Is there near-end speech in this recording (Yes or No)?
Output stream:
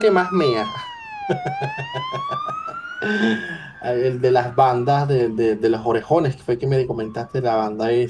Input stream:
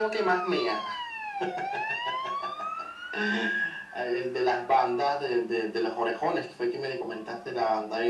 No